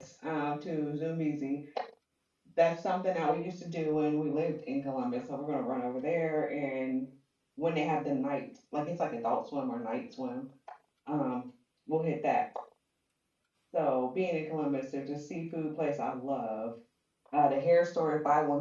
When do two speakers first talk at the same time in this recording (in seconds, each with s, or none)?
none